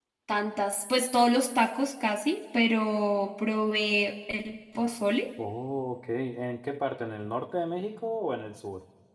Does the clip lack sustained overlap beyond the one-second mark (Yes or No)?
Yes